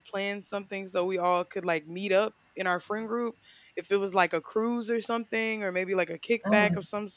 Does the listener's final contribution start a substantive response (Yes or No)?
No